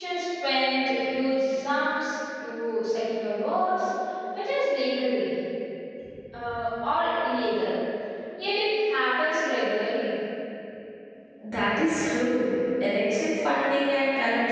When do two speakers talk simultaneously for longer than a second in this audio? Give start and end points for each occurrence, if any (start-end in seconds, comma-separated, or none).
none